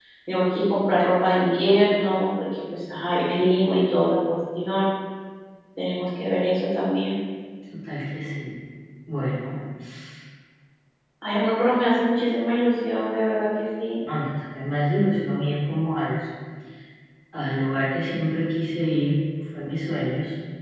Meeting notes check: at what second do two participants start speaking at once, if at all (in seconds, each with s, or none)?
none